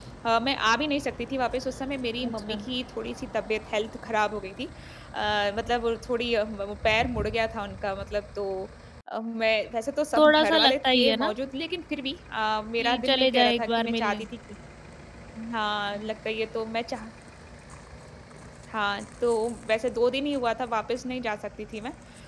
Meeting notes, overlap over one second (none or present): present